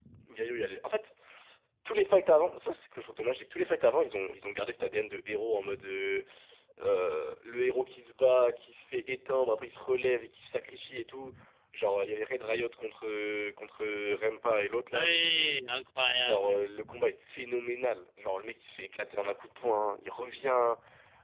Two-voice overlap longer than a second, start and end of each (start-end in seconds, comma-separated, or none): none